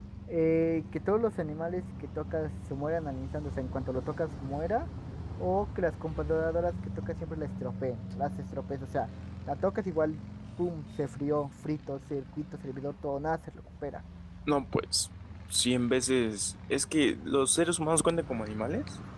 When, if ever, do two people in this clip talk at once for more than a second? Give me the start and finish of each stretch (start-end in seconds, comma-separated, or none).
none